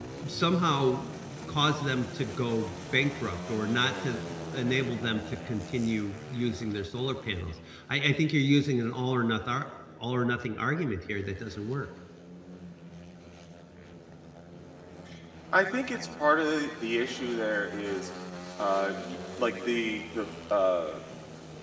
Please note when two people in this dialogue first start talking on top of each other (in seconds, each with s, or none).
none